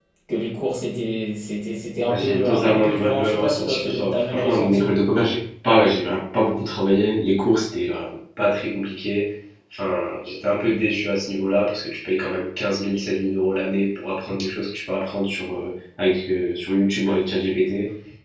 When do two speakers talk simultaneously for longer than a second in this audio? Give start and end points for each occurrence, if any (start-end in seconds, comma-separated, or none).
2.1-4.8